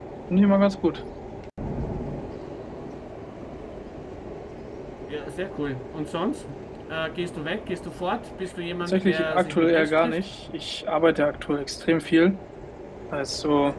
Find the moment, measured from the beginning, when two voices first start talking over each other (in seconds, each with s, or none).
8.8 s